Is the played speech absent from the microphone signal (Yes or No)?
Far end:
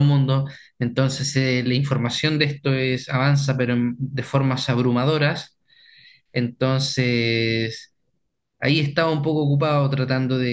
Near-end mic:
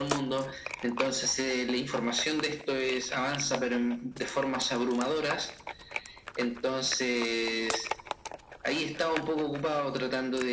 No